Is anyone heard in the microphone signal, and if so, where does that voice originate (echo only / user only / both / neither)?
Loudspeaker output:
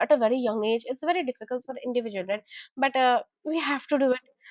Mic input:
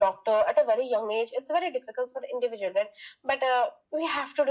echo only